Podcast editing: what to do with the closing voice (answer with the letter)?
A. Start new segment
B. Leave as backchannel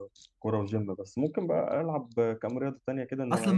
A